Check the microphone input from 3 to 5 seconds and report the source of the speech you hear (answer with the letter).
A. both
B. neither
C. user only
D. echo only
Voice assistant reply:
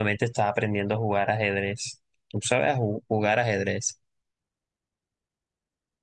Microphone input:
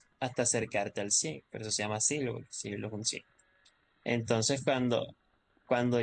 C